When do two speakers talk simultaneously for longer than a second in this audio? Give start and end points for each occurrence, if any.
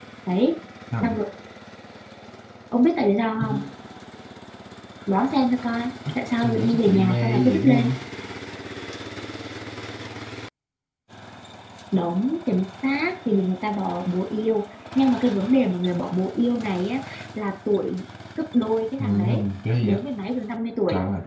6.4-7.9

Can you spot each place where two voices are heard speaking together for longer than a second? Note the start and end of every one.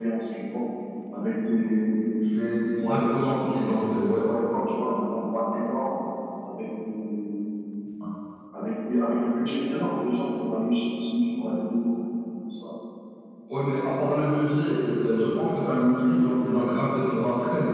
2.6-3.8

